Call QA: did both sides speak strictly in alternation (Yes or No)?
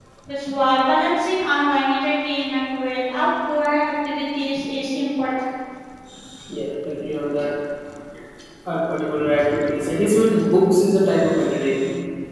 Yes